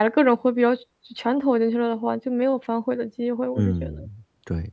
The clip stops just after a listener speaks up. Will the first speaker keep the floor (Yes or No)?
No